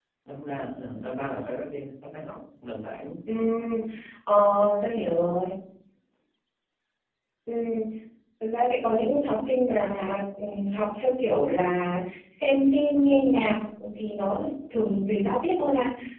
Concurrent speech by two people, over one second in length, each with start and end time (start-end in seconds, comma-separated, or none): none